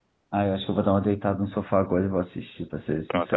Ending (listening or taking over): taking over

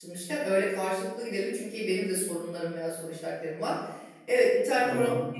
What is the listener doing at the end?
listening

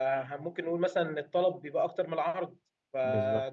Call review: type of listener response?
listening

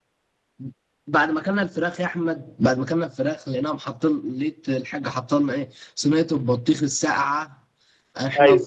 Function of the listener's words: listening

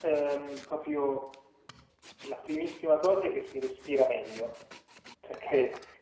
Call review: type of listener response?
listening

